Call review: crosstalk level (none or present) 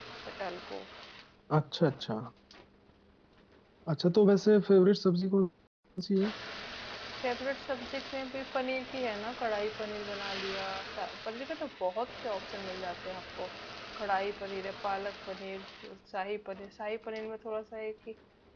none